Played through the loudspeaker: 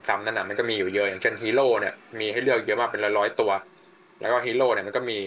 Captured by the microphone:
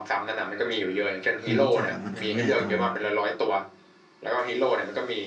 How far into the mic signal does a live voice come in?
1 s

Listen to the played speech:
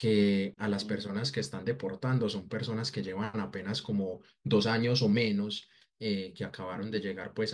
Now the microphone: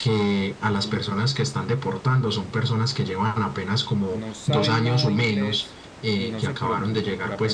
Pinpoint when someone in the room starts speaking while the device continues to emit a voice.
4 s

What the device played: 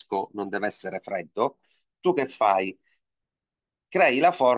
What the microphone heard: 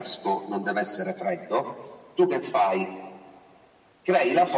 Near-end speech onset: none

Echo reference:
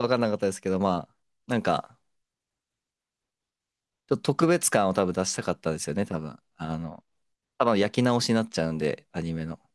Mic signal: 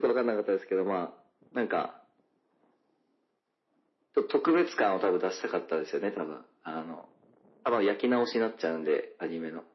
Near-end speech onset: none

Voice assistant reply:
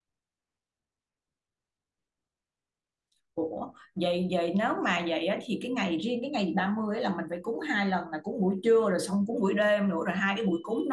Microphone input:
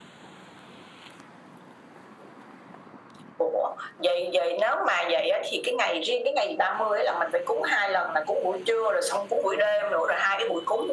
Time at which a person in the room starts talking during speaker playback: none

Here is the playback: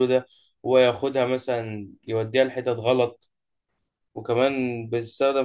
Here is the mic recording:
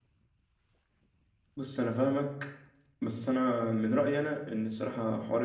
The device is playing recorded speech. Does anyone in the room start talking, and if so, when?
2 s

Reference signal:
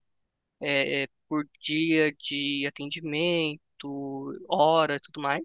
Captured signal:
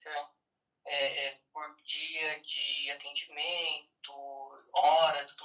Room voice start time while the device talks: none

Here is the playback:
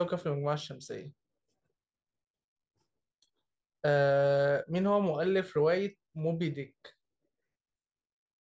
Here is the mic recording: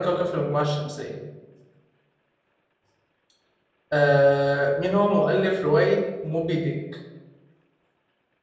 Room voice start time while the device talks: none

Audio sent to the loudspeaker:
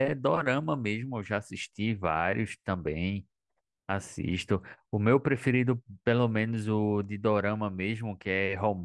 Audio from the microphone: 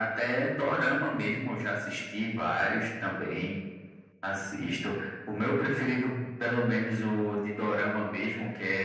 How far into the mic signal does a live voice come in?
none

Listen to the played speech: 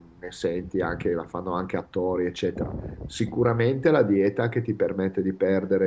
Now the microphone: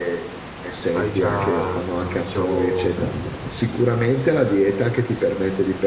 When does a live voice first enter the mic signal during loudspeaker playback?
1 s

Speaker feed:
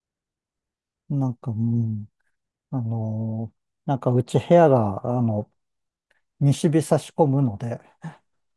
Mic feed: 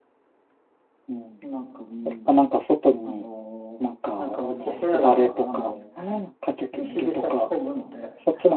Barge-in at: 1 s

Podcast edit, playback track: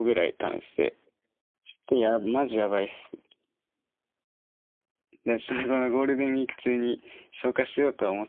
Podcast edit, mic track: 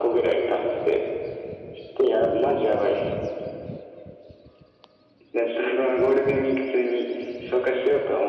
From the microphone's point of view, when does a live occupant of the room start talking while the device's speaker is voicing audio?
none

